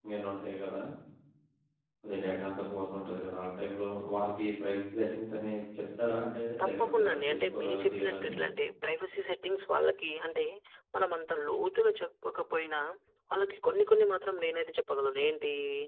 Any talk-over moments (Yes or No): Yes